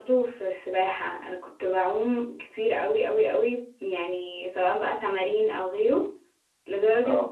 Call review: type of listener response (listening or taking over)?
listening